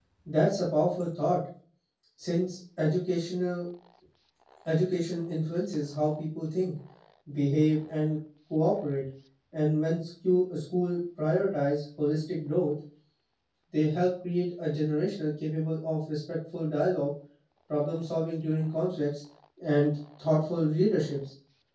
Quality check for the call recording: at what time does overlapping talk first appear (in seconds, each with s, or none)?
none